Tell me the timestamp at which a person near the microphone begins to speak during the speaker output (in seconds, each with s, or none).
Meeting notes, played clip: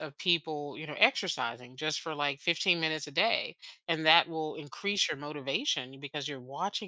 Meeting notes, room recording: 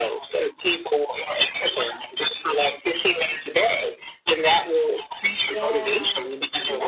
5.4 s